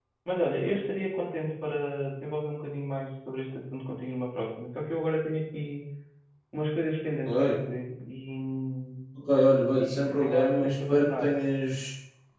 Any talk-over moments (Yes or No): Yes